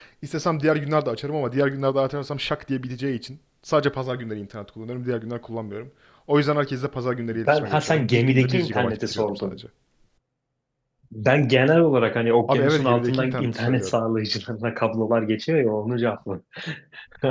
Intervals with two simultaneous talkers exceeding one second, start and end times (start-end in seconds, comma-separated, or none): 7.3-9.6, 12.5-13.9